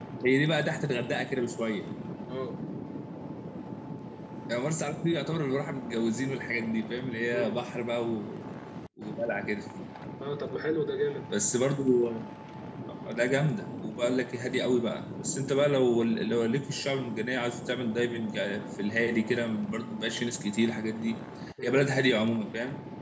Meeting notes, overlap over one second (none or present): none